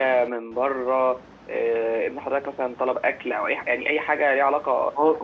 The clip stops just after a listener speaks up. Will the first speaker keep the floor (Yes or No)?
No